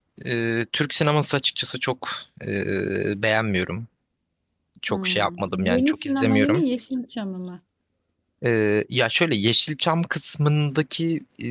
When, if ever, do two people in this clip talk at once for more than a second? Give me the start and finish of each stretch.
4.9-6.6

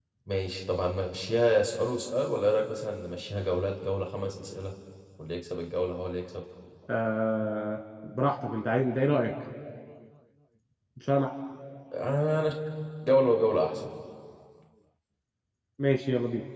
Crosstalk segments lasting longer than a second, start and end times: none

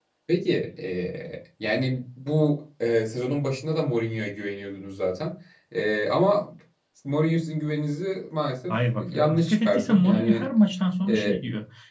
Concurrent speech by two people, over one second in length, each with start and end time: 8.7-10.4

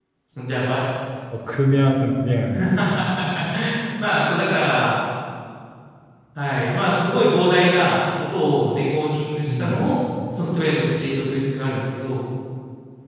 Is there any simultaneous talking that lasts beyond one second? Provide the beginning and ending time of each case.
none

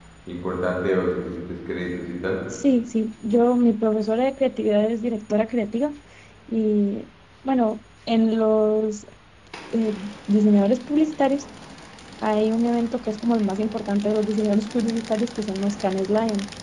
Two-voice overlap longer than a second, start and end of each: none

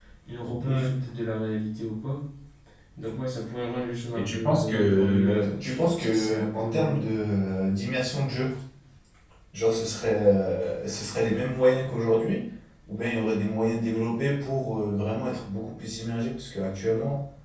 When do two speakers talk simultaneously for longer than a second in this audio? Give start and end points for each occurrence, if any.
4.1-7.0

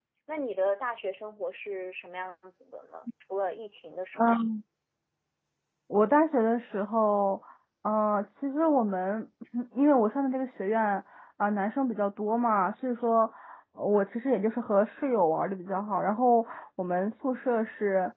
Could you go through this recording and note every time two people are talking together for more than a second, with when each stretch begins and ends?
none

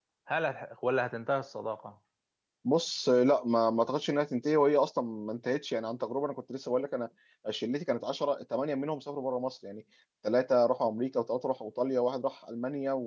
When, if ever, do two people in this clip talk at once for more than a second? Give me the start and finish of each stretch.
none

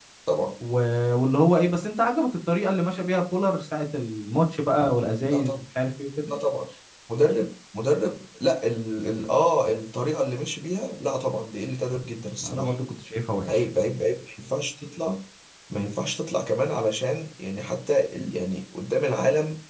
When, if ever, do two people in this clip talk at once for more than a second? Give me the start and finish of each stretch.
none

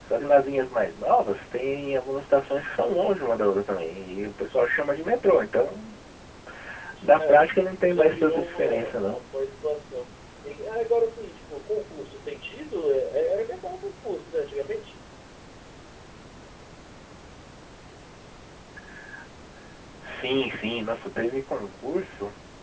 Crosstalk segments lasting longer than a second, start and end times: 7.9-9.2

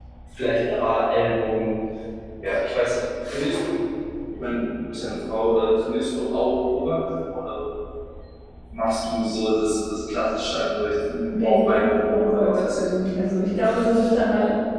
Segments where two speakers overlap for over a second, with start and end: 11.3-12.9

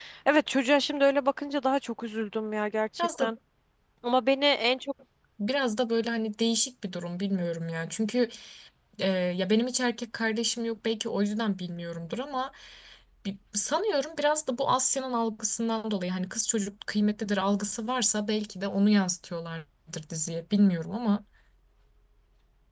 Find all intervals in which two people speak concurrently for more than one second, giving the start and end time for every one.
none

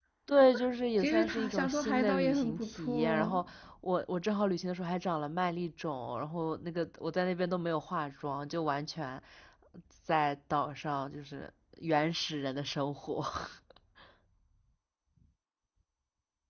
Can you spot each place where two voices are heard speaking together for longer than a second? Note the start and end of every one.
1.0-3.4

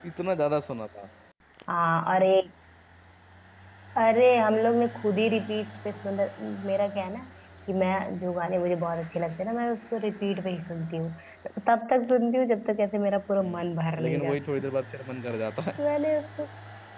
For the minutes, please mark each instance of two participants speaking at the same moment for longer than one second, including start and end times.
13.4-14.7

